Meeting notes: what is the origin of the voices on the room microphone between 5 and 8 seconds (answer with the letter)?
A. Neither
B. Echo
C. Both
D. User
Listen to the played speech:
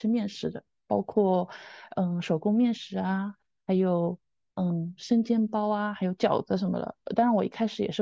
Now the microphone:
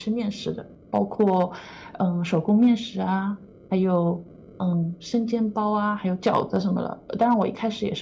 B